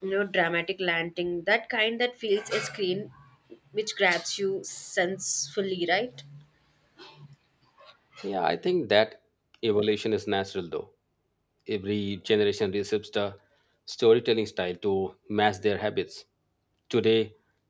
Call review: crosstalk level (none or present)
none